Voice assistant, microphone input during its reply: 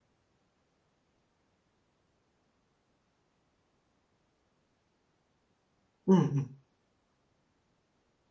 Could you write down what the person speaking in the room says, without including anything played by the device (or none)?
うんうん。